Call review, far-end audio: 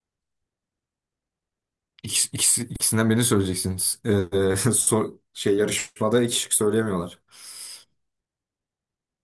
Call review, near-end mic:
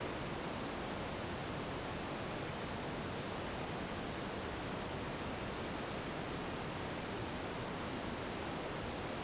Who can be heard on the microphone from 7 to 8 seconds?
neither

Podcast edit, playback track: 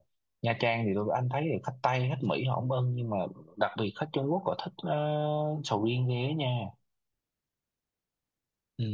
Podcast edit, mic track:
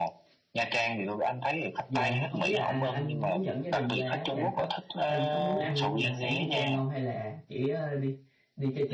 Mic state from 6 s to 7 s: both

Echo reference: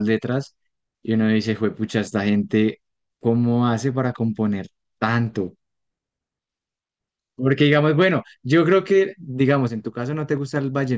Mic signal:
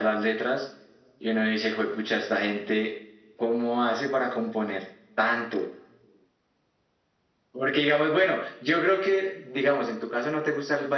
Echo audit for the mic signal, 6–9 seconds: echo only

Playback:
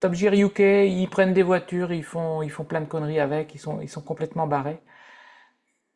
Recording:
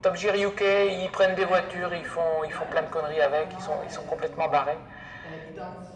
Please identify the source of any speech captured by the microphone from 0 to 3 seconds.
both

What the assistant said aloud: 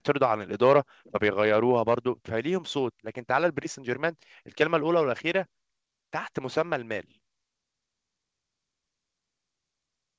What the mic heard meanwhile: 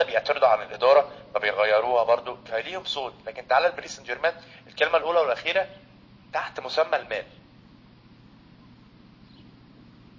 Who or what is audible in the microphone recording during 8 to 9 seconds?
neither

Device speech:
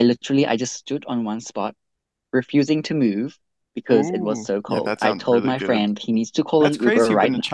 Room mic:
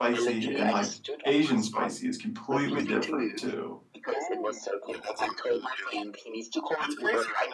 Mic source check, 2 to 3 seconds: both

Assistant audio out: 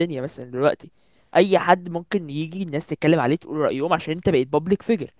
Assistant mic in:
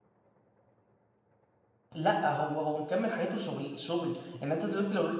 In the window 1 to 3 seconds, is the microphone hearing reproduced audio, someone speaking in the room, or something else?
user only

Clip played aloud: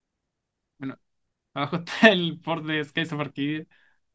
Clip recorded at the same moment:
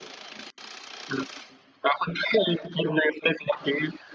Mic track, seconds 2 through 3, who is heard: echo only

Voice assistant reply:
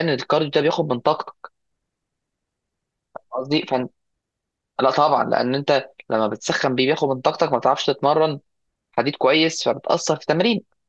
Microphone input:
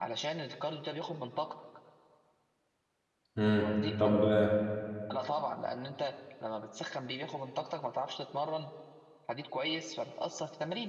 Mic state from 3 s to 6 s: both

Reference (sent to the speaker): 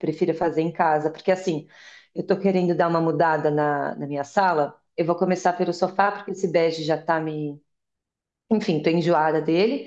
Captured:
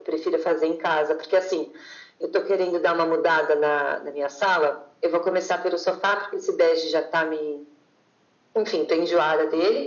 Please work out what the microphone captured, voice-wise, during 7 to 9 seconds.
echo only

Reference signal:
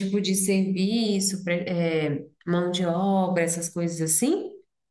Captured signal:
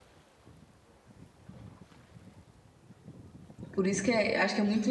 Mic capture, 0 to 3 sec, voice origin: neither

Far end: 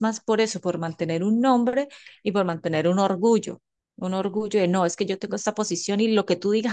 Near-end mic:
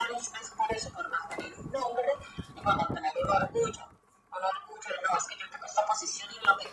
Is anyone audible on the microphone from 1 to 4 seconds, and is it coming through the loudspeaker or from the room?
echo only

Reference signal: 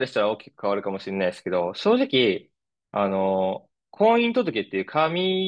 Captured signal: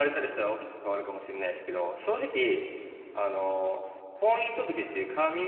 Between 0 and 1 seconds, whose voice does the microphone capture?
echo only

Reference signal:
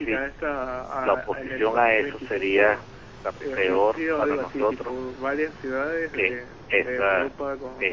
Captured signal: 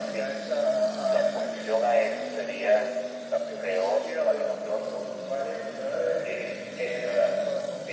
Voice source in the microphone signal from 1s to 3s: echo only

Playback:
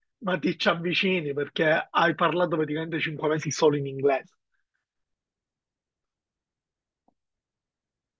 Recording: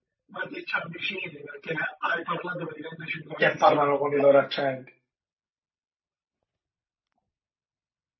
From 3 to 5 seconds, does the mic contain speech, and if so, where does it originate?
both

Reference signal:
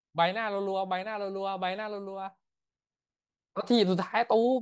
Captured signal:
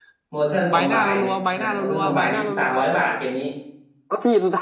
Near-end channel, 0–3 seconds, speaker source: both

